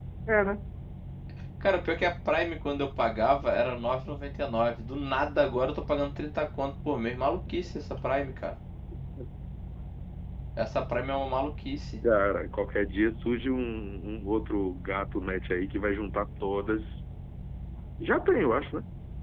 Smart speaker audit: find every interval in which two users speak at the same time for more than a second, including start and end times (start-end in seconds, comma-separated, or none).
none